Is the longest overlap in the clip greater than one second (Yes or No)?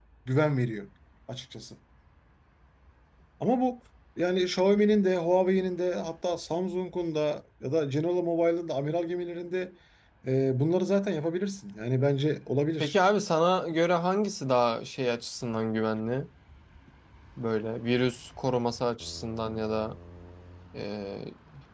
No